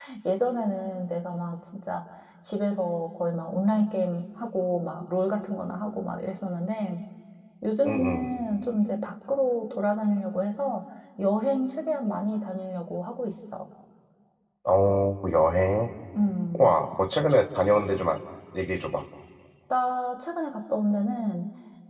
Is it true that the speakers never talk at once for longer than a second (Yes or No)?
Yes